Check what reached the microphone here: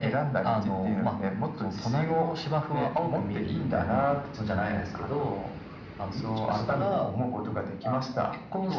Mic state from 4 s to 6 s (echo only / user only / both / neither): echo only